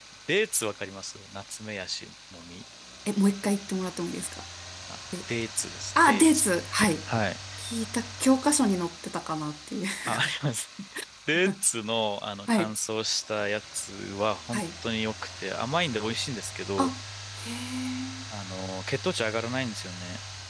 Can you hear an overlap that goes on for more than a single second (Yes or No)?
No